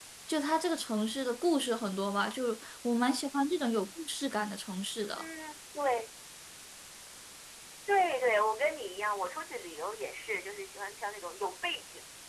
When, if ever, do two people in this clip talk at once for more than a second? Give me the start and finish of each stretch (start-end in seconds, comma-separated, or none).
none